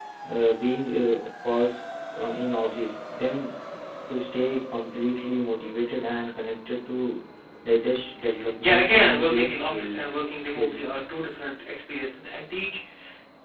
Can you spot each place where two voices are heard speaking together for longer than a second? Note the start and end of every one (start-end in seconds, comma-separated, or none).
8.6-10.0